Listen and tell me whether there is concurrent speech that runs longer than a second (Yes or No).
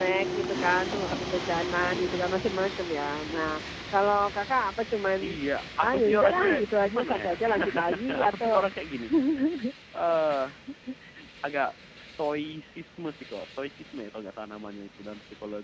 Yes